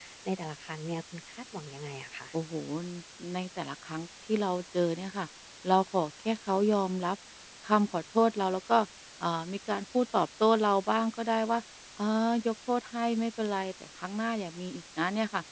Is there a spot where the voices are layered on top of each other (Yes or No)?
No